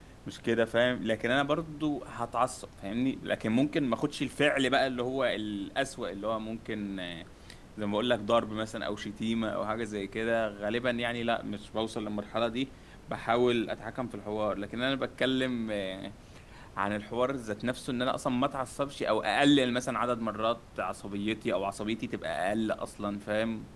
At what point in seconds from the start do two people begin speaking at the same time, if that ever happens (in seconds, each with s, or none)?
none